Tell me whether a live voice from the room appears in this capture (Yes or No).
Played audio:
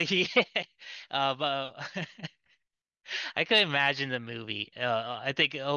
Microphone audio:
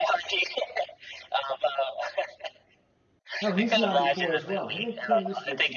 Yes